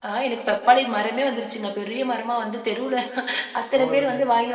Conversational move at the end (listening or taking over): listening